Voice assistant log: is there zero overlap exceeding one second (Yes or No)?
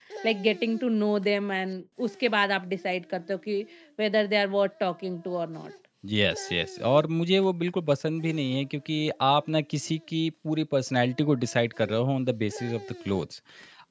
Yes